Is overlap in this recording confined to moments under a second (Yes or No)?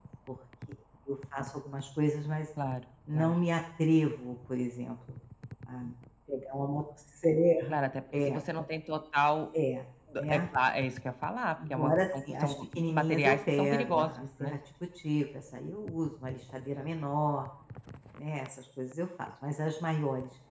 No